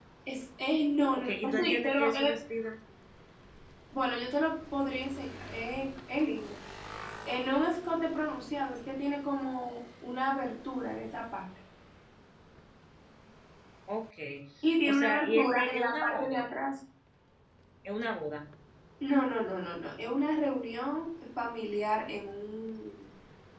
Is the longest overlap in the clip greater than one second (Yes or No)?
Yes